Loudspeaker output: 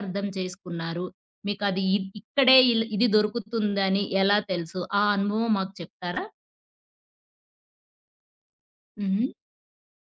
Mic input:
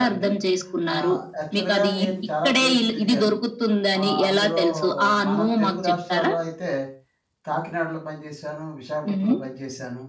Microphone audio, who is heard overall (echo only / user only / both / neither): both